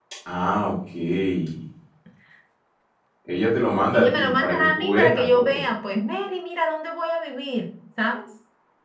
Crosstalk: present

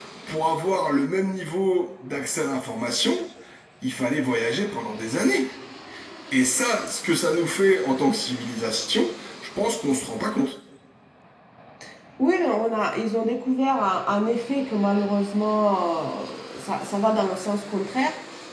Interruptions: none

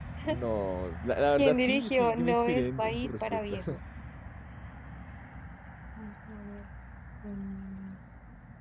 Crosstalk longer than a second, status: present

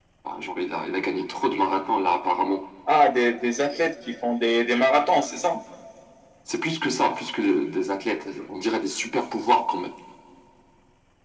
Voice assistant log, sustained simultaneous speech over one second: none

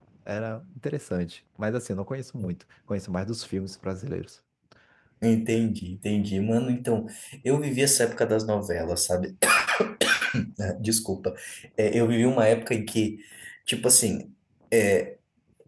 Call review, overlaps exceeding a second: none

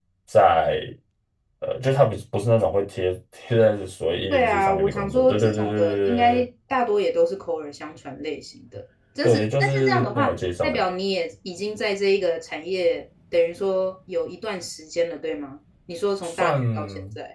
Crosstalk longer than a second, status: present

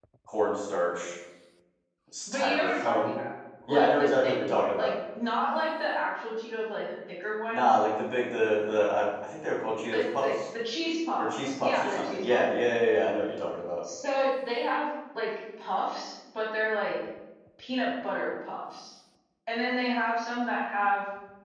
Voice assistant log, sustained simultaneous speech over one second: present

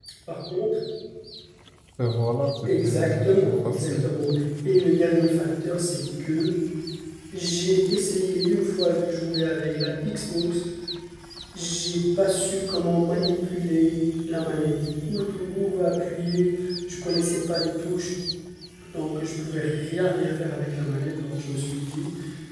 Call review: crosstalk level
present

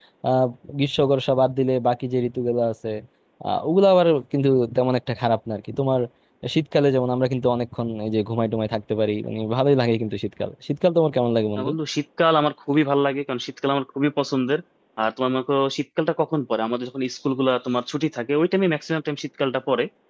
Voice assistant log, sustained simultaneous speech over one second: none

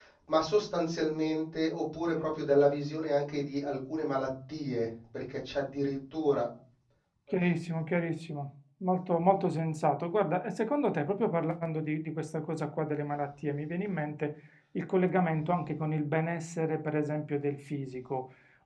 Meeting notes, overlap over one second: none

